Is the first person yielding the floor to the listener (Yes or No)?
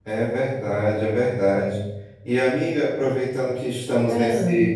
No